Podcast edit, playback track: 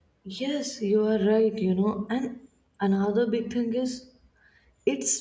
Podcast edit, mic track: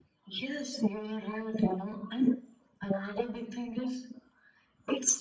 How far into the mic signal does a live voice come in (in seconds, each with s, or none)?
none